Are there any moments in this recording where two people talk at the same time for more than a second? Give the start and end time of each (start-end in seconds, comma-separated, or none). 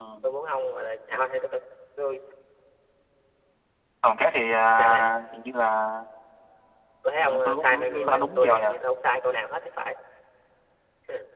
7.2-8.7